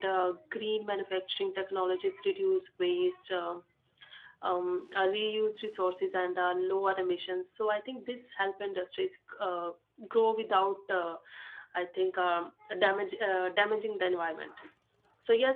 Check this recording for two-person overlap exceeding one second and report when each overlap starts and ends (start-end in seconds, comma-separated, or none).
none